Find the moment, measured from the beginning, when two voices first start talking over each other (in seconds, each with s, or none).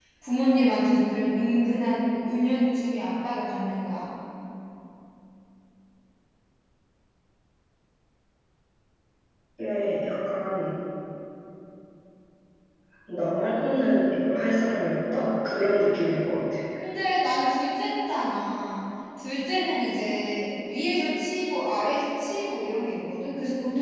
none